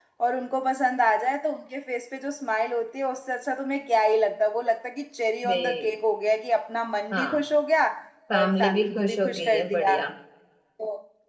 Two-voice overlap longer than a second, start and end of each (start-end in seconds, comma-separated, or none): 8.4-9.9